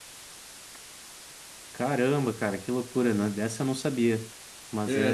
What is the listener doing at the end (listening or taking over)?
listening